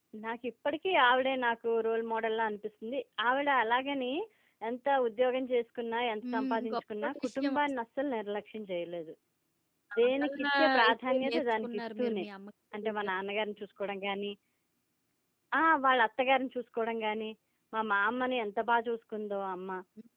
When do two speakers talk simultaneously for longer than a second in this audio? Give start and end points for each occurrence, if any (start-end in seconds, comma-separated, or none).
6.3-7.6, 10.2-12.2